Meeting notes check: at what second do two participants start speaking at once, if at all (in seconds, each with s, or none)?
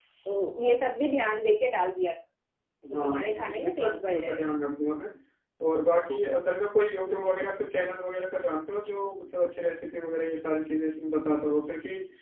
2.9 s